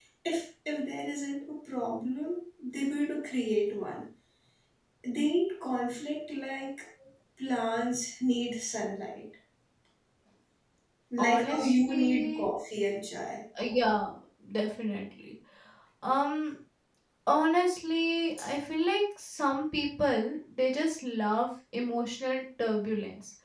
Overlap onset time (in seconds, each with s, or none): 11.2 s